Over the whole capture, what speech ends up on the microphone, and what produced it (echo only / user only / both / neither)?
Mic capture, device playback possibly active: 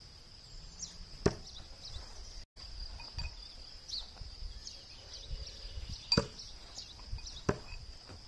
neither